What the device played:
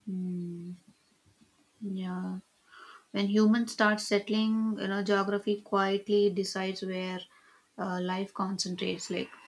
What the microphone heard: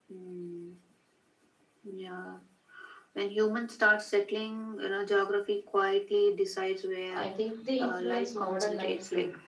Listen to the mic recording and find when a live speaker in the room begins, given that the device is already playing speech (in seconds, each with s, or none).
7.1 s